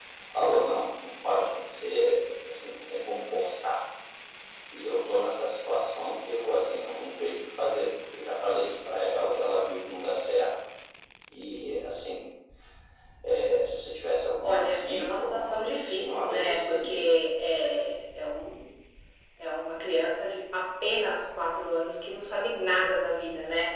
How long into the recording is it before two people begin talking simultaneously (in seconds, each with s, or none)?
14.4 s